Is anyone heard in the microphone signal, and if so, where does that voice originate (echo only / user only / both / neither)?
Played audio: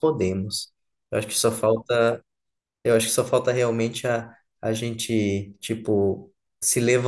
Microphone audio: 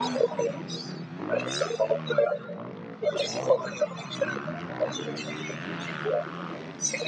echo only